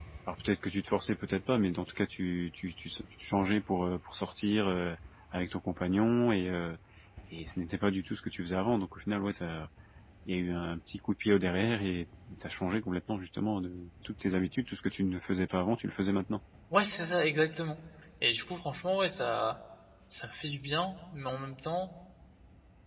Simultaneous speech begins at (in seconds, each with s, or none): none